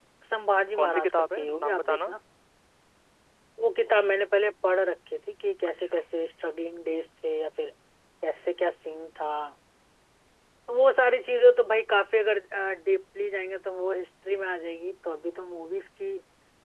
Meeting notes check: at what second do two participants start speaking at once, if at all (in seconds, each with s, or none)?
0.8 s